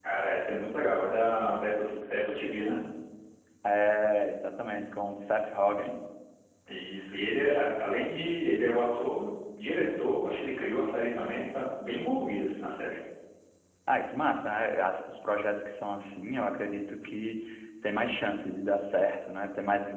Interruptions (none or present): none